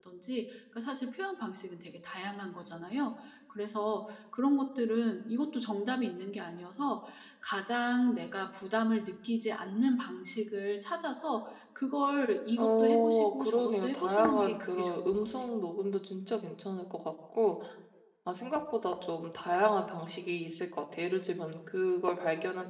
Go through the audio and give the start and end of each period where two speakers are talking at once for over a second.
12.6-15.2

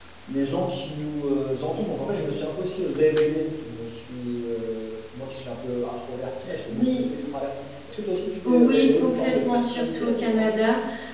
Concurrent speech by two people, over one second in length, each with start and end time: 8.5-10.5

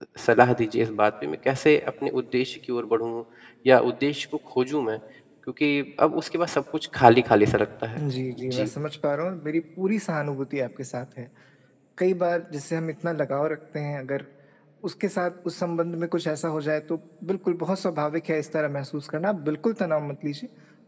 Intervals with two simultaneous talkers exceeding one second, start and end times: none

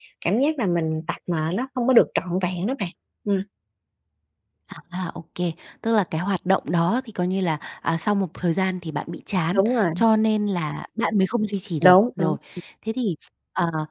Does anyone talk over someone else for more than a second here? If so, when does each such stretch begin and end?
none

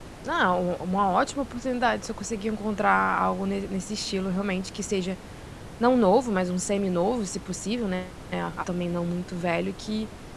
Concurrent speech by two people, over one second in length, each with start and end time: none

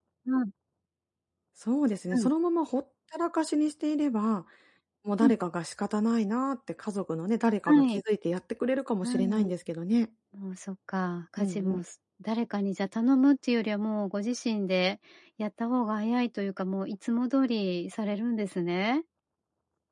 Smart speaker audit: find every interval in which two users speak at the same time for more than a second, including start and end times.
none

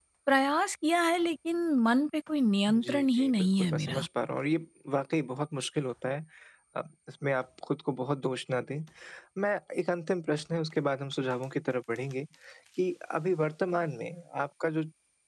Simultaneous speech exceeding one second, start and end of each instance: 2.7-4.0

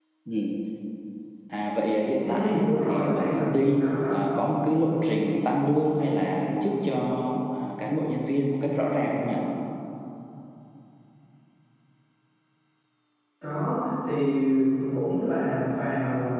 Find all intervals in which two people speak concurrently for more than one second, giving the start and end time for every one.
2.2-4.1

